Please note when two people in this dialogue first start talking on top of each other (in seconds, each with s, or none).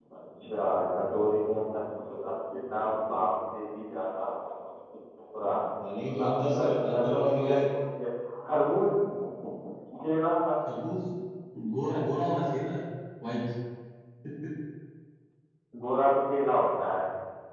6.1 s